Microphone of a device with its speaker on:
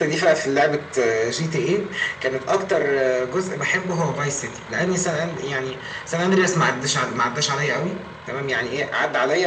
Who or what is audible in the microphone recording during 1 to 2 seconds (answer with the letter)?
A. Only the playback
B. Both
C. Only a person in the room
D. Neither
A